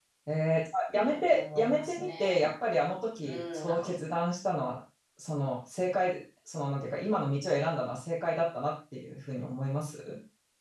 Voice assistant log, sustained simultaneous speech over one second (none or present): present